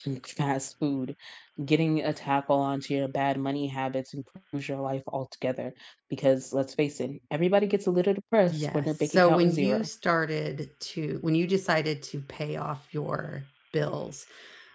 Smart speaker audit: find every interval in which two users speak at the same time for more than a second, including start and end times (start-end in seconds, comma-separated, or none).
8.5-9.9